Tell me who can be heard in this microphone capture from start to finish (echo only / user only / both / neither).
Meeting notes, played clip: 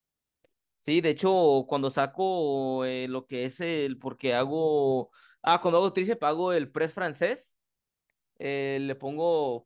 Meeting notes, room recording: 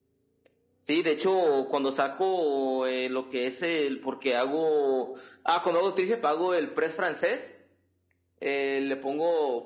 echo only